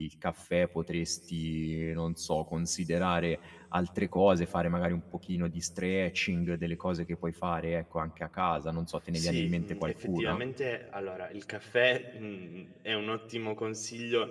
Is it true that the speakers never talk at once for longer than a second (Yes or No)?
No